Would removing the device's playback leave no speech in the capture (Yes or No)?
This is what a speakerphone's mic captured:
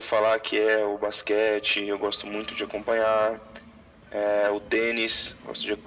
Yes